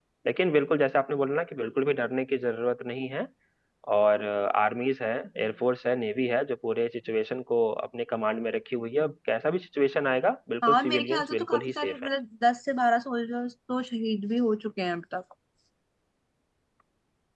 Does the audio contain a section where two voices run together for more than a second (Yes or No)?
Yes